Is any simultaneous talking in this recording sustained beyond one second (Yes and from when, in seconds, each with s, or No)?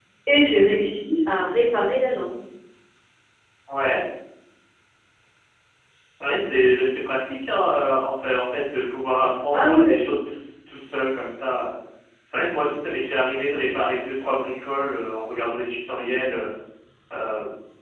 No